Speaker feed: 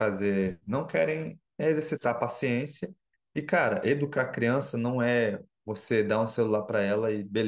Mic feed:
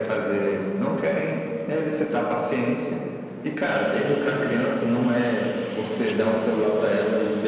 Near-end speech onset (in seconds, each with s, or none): none